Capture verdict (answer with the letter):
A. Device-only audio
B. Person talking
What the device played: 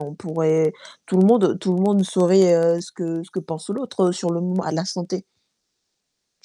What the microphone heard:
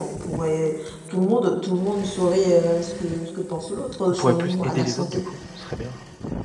B